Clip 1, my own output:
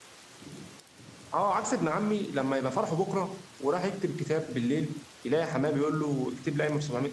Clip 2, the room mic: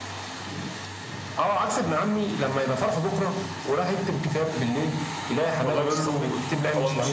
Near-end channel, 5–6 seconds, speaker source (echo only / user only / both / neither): both